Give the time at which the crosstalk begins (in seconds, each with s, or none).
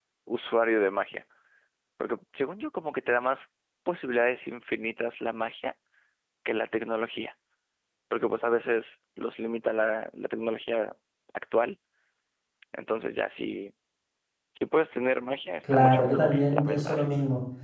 15.6 s